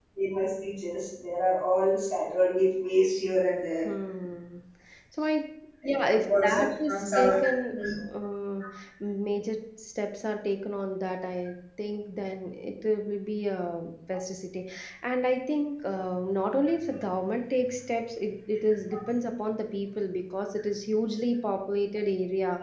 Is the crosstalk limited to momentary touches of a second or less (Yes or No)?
No